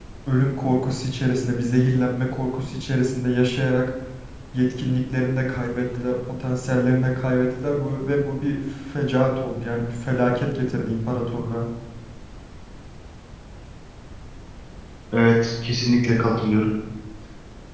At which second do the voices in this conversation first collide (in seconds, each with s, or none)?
none